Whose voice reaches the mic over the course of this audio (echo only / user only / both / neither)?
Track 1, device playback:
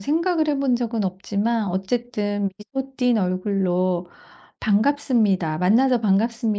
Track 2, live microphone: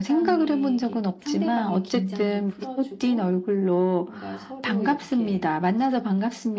both